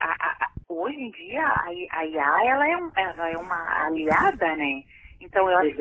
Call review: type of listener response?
listening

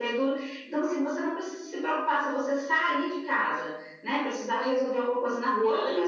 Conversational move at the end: listening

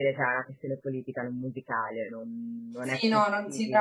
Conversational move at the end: taking over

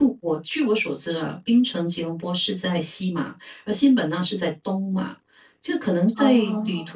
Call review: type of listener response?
listening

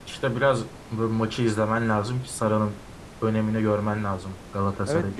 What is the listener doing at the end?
taking over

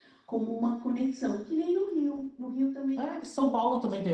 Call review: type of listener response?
taking over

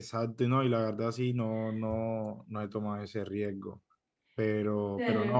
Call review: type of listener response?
listening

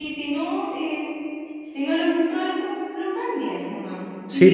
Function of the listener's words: taking over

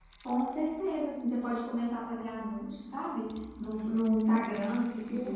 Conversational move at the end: taking over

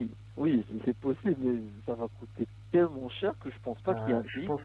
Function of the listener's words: taking over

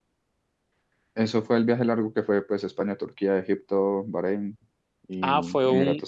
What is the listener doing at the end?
taking over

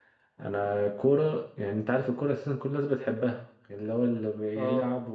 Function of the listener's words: listening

